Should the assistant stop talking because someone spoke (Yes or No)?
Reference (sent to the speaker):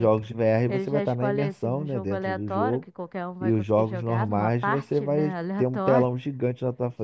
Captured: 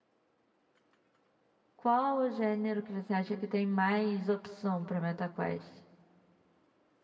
Yes